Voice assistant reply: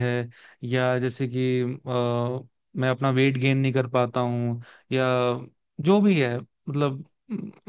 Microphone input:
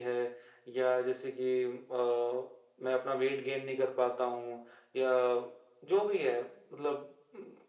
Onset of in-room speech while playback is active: none

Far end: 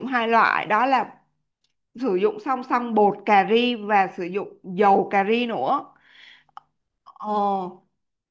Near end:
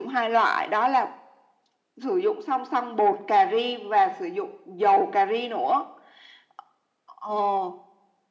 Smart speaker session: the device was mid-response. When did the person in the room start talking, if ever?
none

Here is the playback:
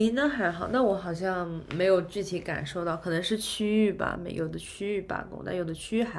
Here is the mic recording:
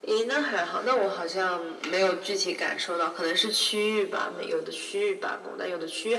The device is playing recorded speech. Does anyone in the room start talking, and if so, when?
none

